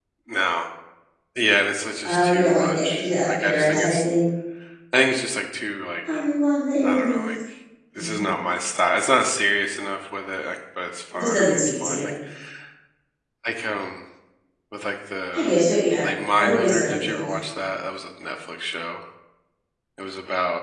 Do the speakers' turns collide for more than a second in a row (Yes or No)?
Yes